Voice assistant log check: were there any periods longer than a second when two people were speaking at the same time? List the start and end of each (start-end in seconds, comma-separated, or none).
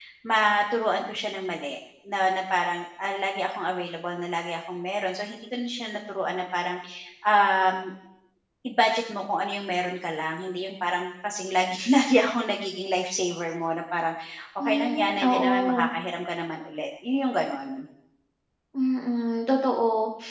14.6-15.9